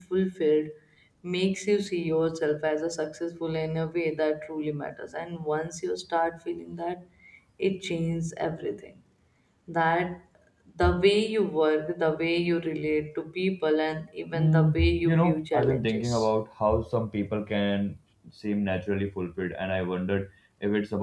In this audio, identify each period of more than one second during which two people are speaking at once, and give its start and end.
14.3-16.3

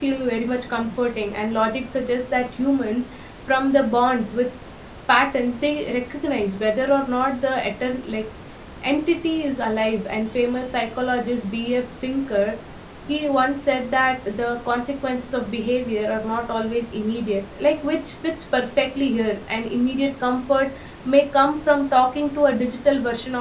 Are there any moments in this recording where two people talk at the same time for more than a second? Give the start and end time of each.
none

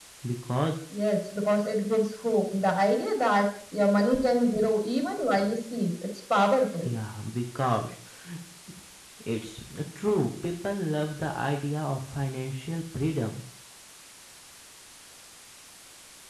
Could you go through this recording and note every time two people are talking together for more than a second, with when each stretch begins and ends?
none

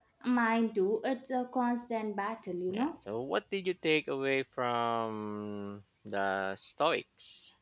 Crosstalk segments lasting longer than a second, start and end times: none

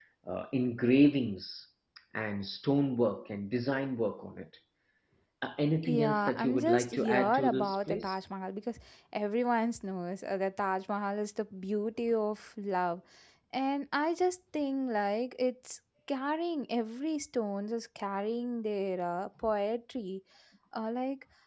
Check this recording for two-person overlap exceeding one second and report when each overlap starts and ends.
5.8-8.2

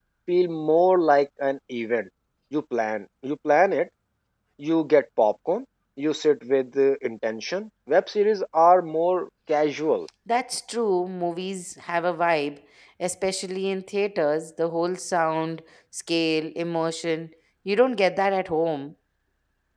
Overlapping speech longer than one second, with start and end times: none

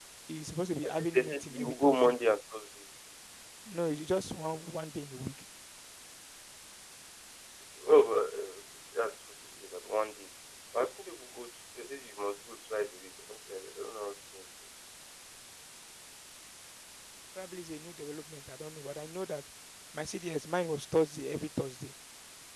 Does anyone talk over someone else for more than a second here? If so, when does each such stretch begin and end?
0.8-2.1

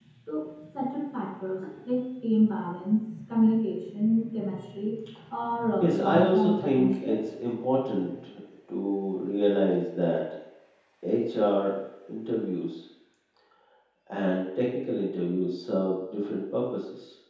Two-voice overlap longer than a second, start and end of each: 5.8-7.2

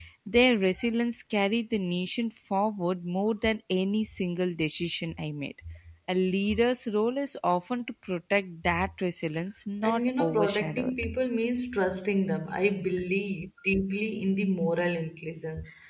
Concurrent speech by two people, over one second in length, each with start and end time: 9.8-11.0

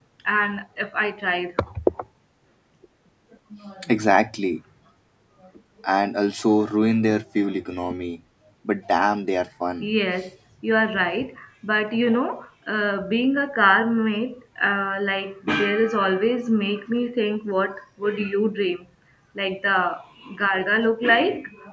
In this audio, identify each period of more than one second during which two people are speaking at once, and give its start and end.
none

